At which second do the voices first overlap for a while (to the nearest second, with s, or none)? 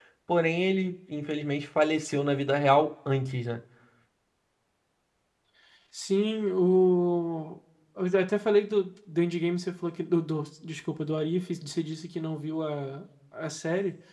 none